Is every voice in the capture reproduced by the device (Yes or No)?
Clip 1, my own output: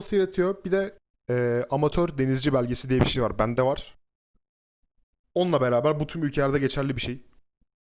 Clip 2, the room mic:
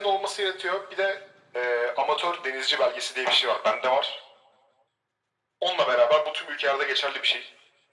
Yes